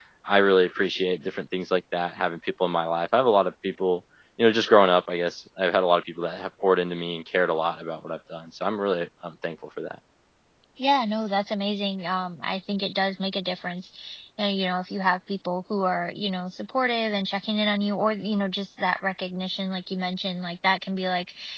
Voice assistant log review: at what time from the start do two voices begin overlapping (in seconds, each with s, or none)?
none